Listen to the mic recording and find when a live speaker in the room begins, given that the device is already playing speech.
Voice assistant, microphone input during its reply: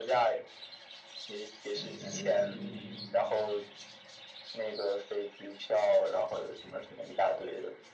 1.7 s

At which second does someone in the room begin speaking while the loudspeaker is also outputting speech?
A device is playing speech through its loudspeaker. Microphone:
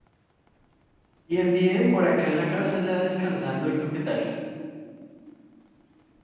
1.2 s

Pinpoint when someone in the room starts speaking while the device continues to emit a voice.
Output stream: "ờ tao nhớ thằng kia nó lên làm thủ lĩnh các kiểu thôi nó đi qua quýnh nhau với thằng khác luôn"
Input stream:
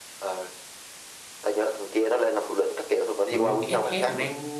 3.3 s

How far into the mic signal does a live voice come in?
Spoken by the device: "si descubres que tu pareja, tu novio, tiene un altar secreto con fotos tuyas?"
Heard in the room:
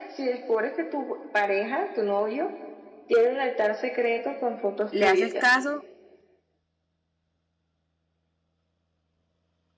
4.9 s

